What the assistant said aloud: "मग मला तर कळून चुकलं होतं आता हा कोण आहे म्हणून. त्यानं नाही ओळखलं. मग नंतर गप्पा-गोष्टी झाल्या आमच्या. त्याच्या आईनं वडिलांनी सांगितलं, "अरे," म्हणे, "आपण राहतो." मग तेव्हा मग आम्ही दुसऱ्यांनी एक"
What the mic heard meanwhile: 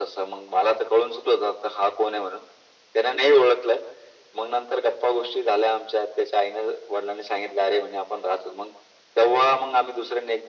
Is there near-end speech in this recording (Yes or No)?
No